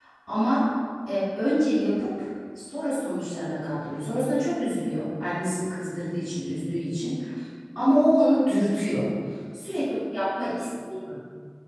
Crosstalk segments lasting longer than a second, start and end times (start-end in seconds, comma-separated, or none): none